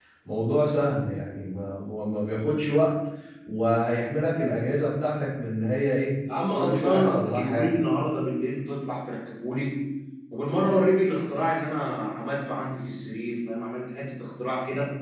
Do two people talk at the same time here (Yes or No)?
Yes